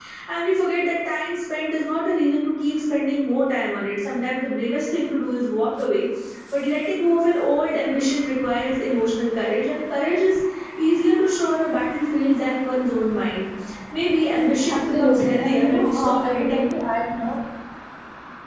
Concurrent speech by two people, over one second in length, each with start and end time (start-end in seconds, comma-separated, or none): 14.7-16.6